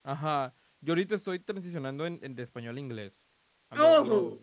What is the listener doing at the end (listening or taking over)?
listening